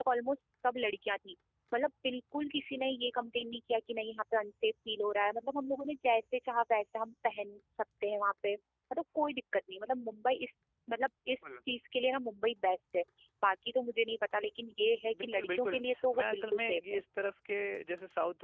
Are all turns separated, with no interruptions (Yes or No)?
No